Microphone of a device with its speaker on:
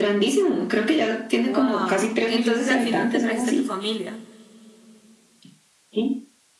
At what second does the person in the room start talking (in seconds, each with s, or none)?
1.4 s